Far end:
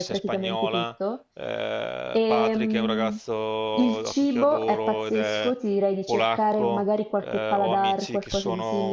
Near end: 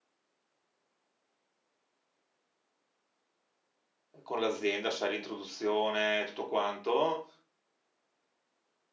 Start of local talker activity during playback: 4.2 s

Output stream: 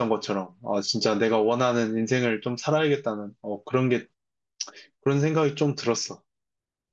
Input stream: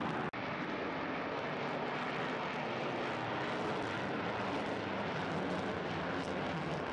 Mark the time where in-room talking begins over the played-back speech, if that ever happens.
none

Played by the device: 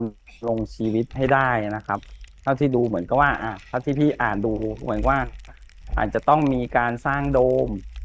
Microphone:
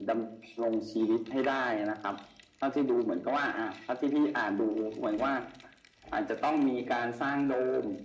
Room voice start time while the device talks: none

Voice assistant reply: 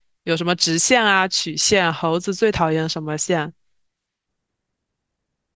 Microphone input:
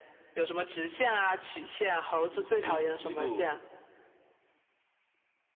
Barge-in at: 2.1 s

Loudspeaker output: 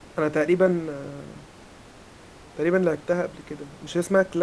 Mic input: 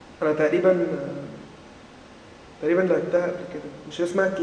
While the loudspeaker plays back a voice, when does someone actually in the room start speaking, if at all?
none

